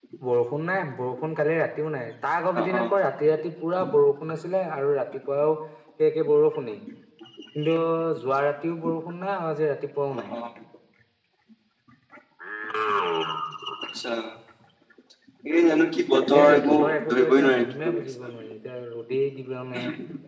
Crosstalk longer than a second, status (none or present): present